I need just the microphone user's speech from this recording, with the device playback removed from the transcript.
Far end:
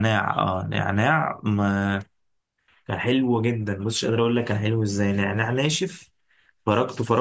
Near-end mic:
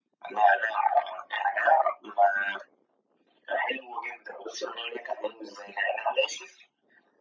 none

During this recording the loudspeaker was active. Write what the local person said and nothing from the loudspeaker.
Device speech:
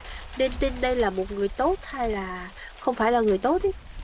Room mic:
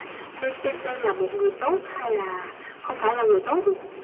none

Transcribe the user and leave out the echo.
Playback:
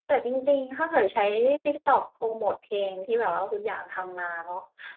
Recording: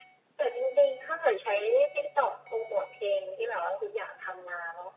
none

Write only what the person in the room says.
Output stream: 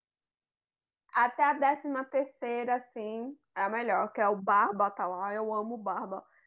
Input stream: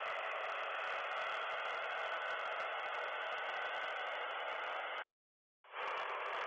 none

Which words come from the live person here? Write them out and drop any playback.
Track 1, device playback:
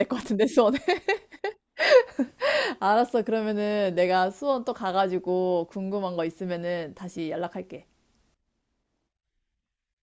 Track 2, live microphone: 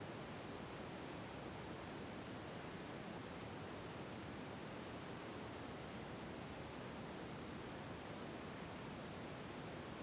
none

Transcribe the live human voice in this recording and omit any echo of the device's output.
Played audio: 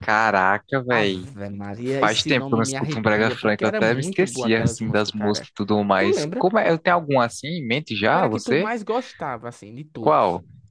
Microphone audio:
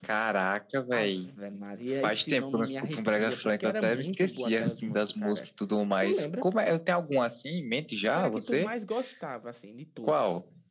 none

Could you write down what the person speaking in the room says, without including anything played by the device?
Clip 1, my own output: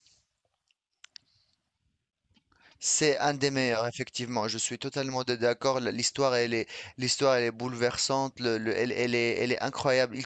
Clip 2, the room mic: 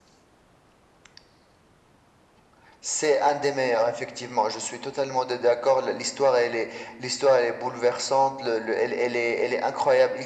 none

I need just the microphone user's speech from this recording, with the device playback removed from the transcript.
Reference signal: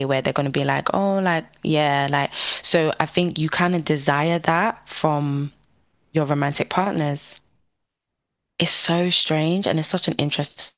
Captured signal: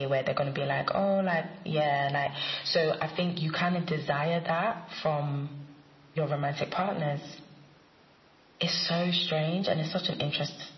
none

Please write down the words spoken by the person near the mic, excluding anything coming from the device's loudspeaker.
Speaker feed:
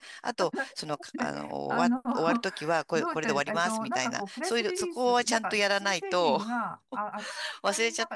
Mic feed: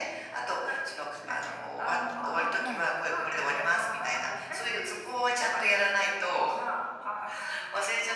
はい。

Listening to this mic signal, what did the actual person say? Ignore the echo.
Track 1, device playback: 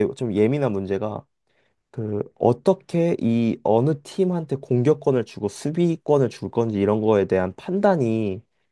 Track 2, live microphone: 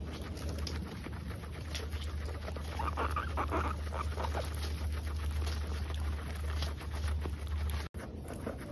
none

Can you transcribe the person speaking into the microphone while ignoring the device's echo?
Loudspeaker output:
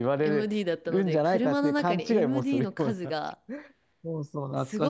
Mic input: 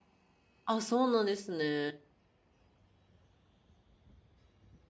あ、そうなんですね。

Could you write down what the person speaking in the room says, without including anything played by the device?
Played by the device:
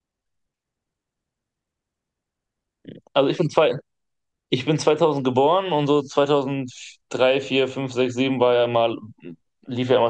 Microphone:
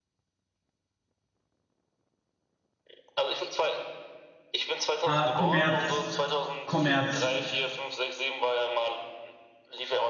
Äh, Kommerz. Kommerz.

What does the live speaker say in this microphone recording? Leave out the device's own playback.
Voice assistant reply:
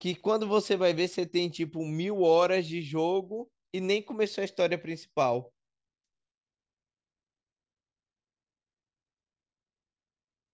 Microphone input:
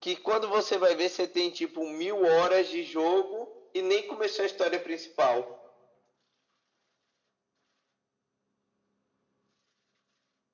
none

